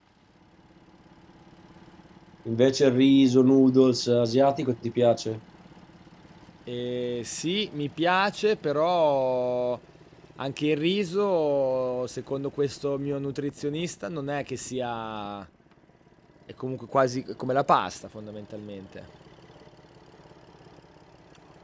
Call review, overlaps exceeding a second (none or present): none